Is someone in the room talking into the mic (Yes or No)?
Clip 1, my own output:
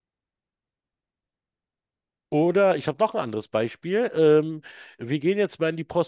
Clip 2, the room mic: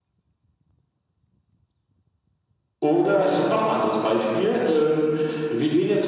No